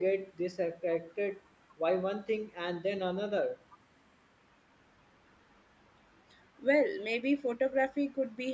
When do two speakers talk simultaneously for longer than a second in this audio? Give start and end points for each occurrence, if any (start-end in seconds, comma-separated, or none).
none